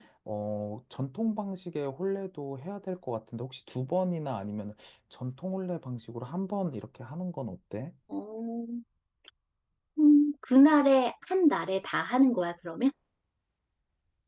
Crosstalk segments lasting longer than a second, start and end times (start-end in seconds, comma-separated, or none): none